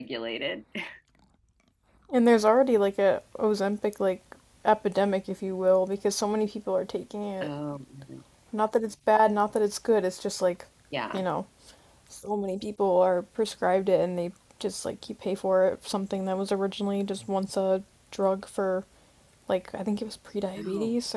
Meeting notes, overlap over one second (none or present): none